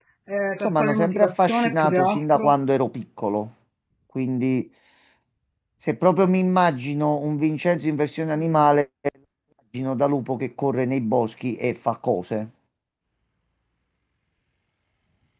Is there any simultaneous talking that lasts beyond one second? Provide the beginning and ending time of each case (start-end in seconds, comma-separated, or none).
0.6-2.5